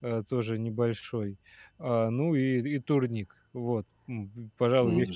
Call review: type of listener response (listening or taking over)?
taking over